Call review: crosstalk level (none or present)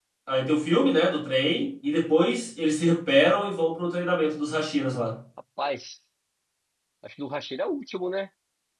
none